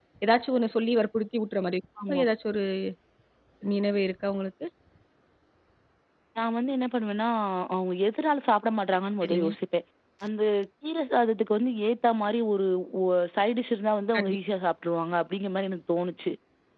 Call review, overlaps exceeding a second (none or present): none